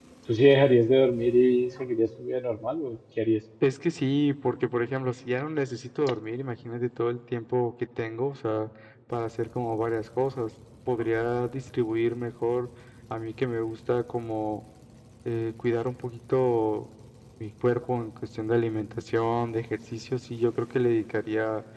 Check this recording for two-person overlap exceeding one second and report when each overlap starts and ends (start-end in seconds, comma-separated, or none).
none